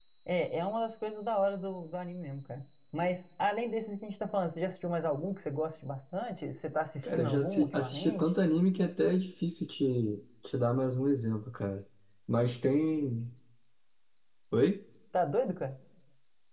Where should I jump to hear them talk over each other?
7.0 s

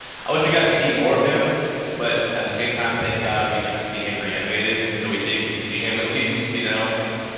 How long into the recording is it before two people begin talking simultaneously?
none

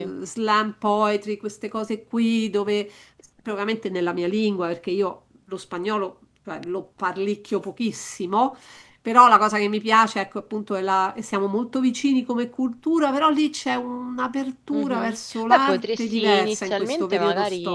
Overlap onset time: 14.7 s

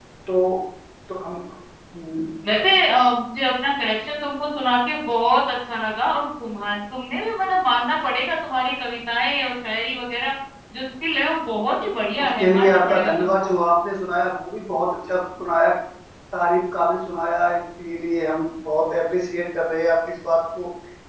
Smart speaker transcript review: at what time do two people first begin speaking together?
12.2 s

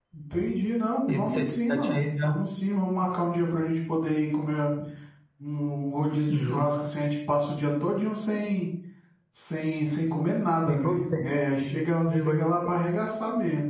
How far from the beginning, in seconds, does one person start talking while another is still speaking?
1.1 s

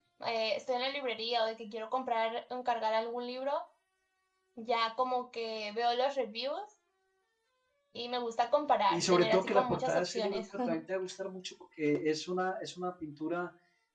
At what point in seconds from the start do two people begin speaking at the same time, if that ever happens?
8.9 s

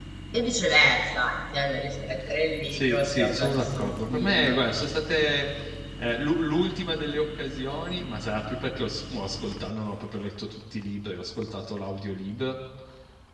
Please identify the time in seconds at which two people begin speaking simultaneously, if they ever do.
2.6 s

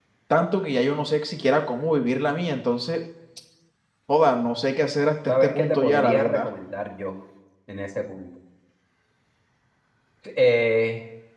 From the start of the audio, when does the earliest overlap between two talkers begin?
5.3 s

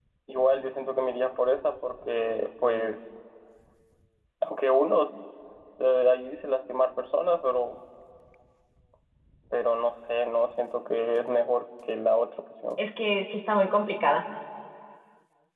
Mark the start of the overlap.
none

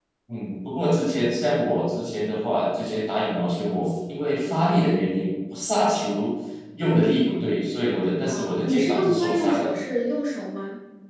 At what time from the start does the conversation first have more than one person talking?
8.3 s

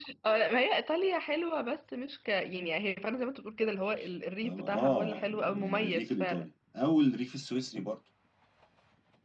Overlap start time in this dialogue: 4.4 s

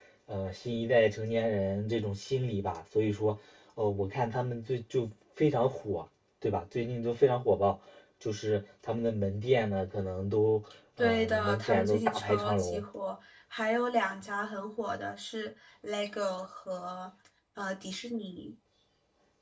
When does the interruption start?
11.0 s

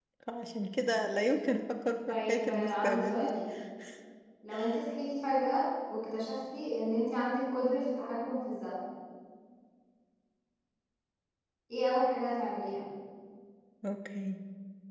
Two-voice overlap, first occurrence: 2.1 s

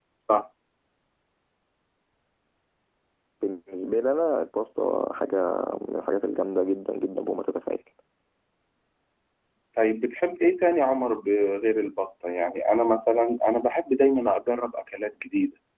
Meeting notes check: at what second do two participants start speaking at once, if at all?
none

